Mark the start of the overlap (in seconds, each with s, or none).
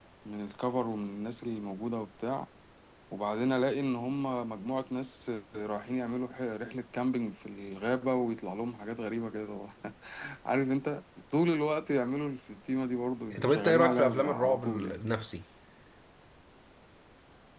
13.3 s